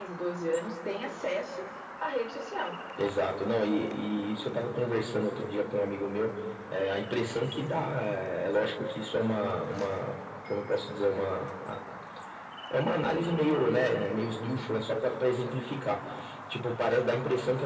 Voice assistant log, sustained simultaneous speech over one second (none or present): none